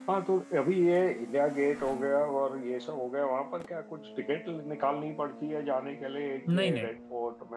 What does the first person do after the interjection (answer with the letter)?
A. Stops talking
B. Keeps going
B